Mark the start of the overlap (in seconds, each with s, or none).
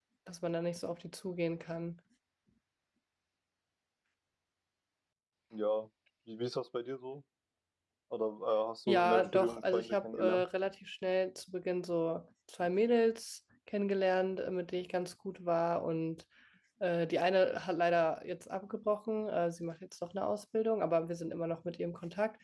8.9 s